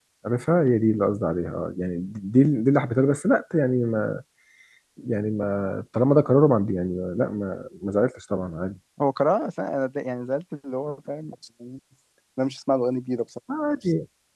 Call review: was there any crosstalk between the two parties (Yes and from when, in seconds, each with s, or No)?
No